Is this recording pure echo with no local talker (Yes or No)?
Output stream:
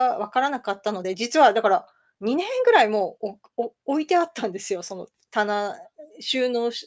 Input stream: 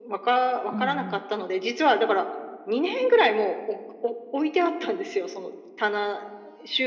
No